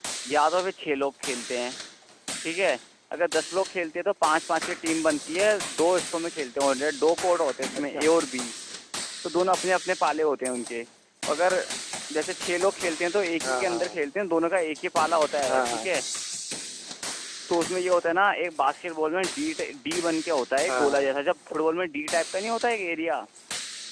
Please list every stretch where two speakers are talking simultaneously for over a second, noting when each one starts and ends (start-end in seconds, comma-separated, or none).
none